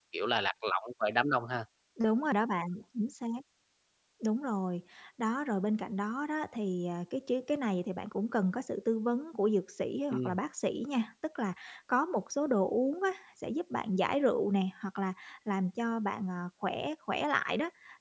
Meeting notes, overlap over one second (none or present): none